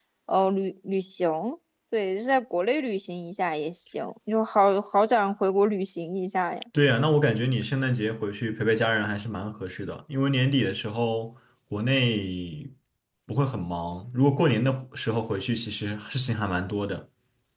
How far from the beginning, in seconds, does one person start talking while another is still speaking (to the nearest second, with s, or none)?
none